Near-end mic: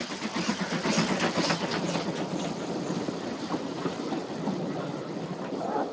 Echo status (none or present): none